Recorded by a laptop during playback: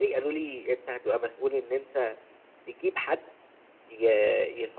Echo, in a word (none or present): present